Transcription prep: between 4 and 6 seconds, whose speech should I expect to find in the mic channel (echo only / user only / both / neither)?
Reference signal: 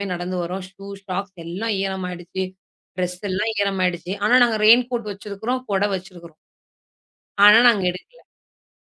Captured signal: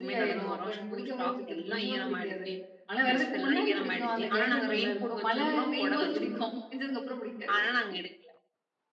both